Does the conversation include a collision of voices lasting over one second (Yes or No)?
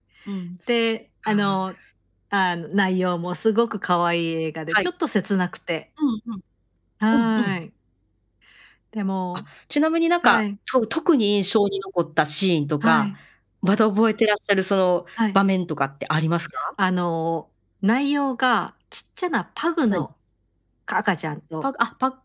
No